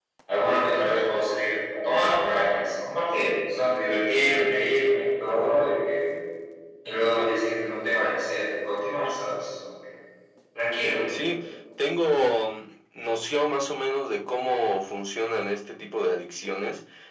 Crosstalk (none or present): none